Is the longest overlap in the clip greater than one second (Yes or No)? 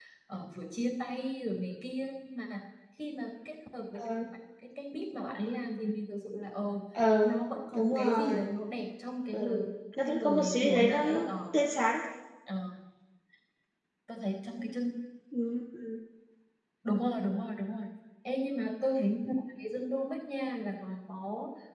Yes